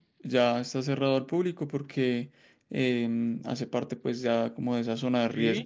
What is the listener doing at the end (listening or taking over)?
listening